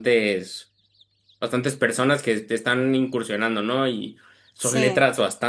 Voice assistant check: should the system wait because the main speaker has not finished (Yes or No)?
Yes